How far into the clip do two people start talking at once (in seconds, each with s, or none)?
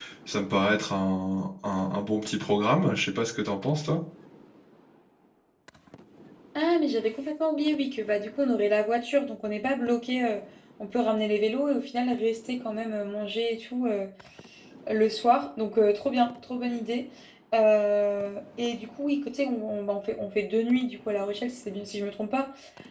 none